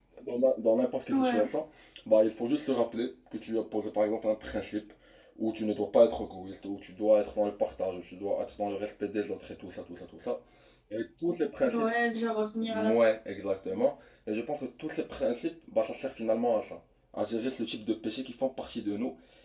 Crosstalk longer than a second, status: none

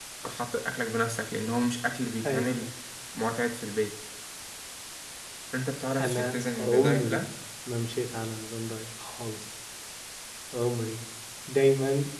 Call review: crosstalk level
present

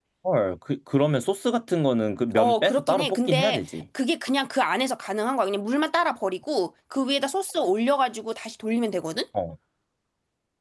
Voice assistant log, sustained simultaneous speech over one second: present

